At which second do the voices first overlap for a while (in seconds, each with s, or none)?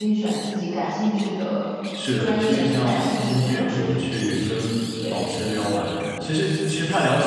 2.2 s